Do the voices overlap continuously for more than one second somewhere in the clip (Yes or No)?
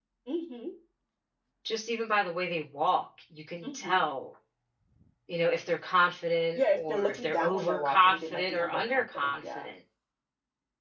Yes